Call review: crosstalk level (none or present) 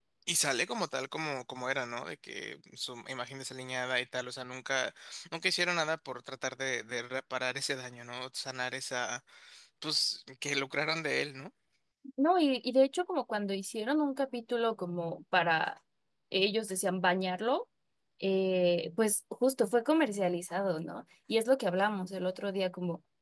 none